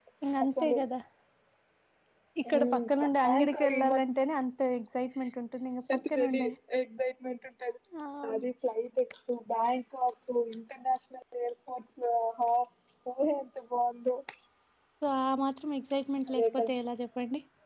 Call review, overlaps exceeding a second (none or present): present